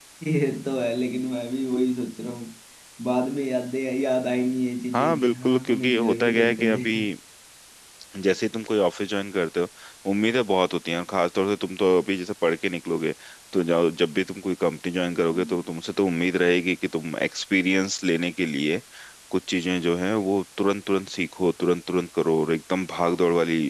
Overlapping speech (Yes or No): Yes